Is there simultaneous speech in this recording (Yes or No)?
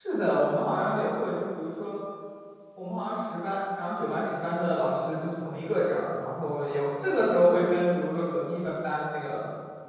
No